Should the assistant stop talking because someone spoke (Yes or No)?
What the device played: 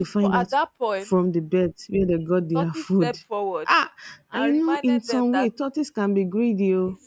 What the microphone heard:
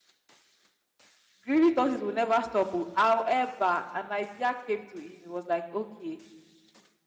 Yes